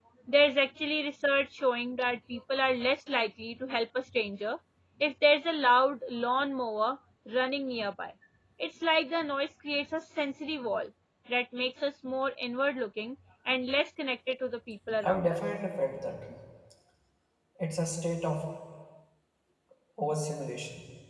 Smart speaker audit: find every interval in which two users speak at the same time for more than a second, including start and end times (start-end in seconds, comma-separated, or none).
none